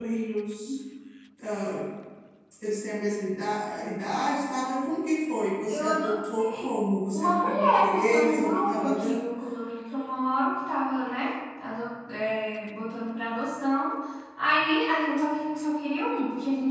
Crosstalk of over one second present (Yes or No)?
Yes